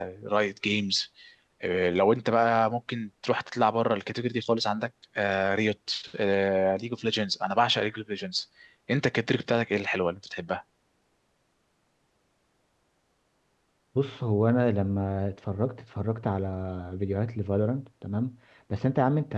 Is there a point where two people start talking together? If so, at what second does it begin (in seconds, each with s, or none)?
none